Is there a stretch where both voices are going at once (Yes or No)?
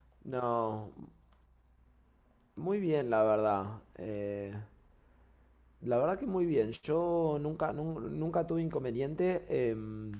No